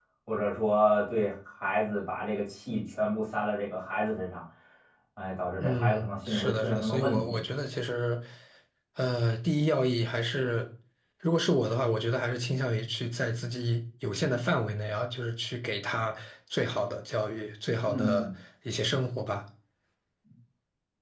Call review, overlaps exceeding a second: present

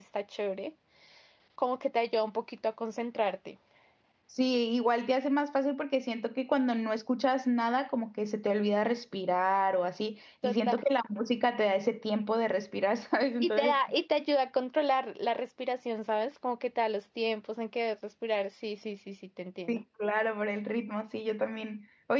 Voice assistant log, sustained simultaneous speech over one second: none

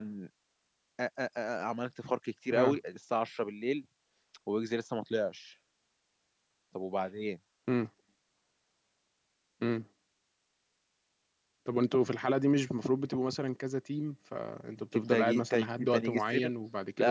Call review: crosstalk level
present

